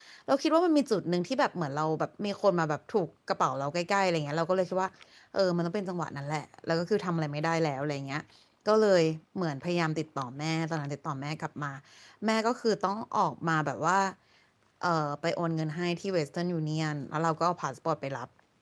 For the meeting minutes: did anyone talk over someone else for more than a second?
No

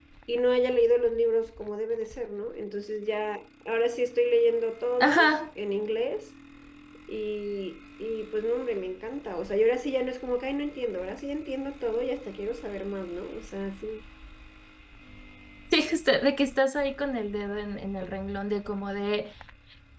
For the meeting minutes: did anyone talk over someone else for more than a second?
No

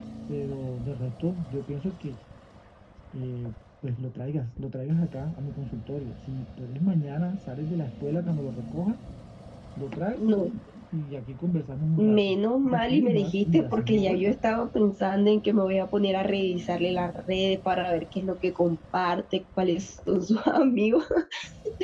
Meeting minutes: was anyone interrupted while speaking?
Yes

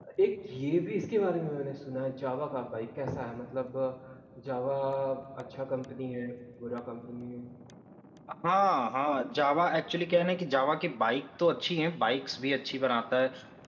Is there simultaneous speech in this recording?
No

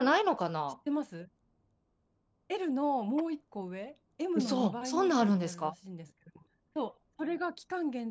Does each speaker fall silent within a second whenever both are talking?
No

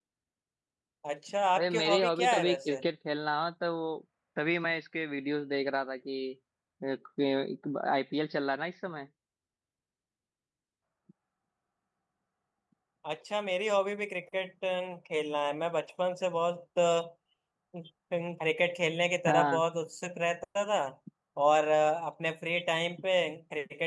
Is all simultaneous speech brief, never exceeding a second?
No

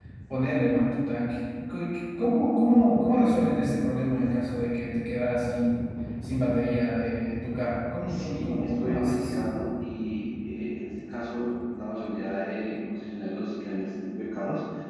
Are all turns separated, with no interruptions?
No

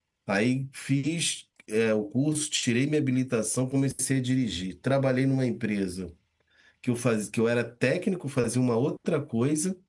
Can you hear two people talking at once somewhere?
No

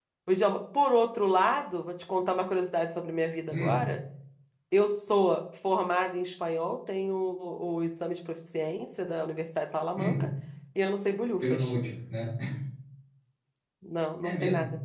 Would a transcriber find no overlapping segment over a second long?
Yes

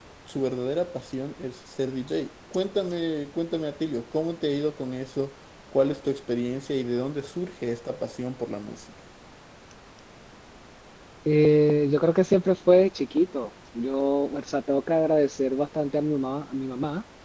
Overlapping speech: No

